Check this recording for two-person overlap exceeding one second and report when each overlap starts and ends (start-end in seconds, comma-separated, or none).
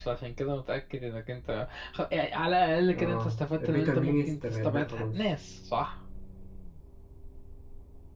2.9-5.2